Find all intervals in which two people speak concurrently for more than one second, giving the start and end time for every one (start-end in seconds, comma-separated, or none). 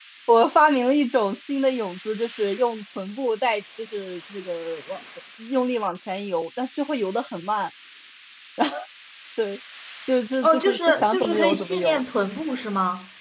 10.4-12.0